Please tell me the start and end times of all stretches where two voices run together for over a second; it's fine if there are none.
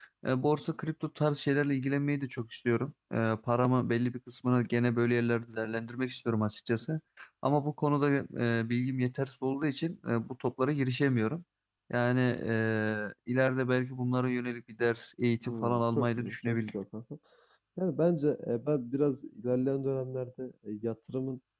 15.5-16.8

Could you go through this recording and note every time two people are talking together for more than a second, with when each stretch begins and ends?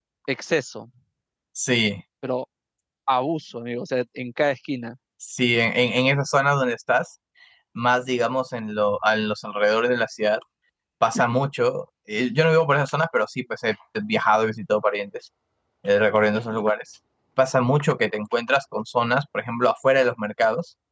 none

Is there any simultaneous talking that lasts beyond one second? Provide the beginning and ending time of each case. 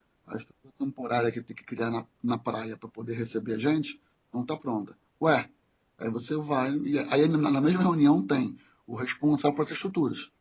none

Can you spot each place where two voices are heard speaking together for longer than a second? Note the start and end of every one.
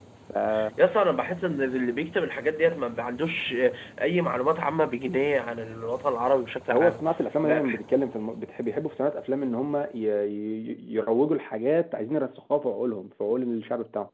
none

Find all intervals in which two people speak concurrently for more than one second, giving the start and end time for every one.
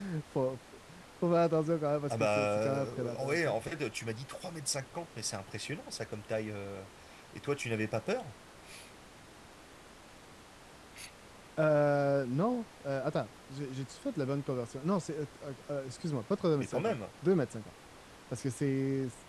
2.1-3.5

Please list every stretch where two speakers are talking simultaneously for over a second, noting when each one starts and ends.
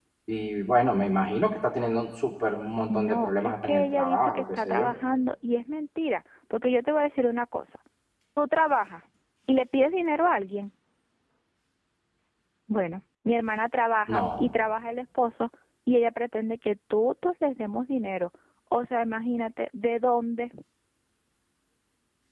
2.9-4.9

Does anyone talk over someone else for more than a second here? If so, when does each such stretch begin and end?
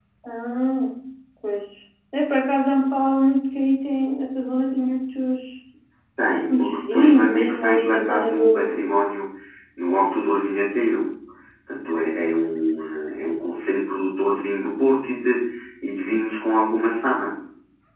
6.5-8.8

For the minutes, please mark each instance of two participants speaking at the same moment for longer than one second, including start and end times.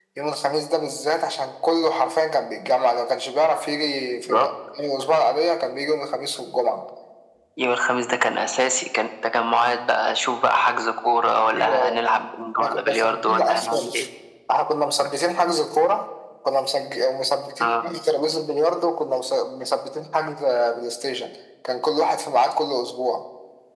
12.6-13.9

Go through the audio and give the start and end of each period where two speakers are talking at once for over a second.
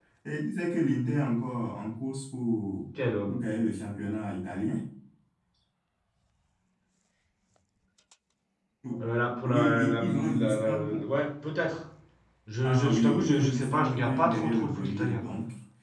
9.4-11.0, 12.6-15.2

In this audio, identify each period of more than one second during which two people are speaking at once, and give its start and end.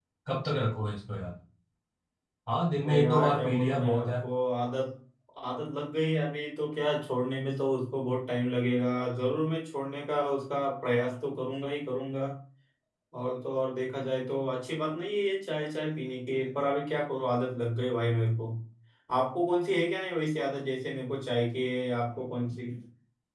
2.9-4.2

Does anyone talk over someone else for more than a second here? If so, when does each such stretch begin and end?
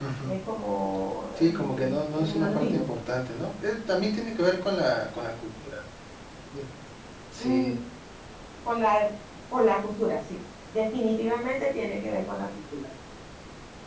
1.4-2.9

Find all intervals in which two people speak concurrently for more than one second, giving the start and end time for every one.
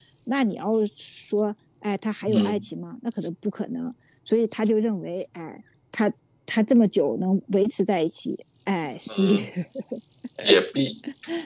none

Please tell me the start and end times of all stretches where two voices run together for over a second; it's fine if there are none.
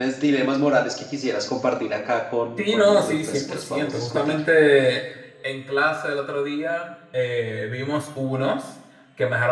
2.6-4.4

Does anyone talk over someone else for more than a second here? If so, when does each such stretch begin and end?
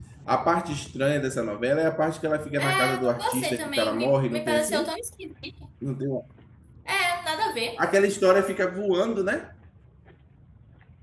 2.6-4.9

